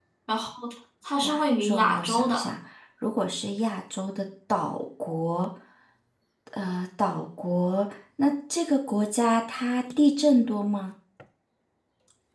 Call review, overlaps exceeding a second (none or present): present